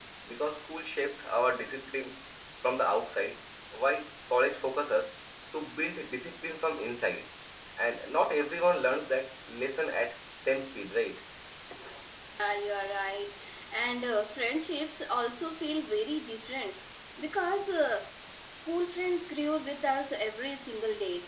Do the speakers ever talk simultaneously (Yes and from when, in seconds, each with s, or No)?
No